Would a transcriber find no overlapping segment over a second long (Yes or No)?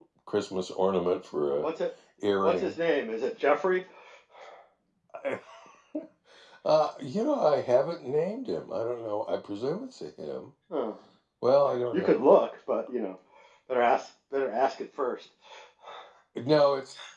Yes